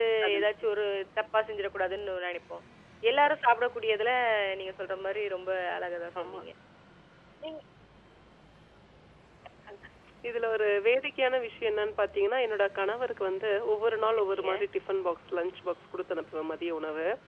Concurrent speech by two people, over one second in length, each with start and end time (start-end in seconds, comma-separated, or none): none